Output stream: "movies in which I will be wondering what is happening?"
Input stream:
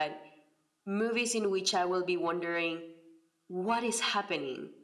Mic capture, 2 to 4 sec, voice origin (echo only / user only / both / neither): echo only